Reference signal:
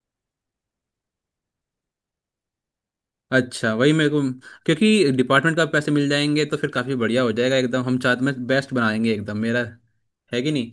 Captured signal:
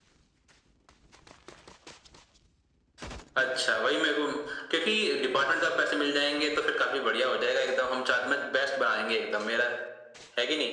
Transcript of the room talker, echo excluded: none

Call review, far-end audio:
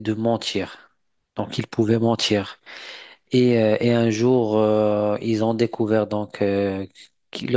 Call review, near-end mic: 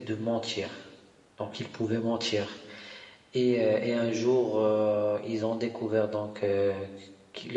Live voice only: none

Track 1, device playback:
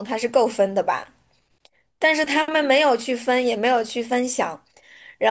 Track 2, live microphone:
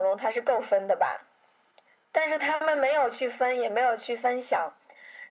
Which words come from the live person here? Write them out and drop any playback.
none

